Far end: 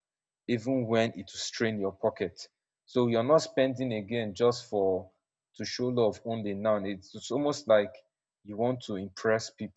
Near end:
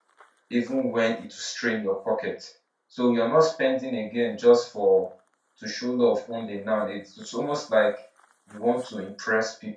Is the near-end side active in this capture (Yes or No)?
No